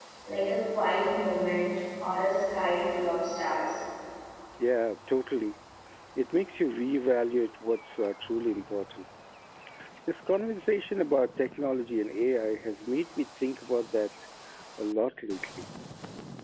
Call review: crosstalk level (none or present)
none